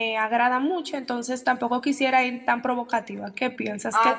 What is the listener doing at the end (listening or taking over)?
taking over